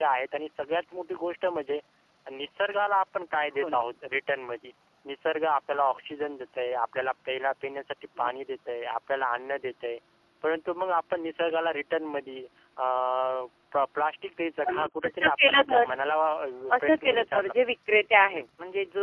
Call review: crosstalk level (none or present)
present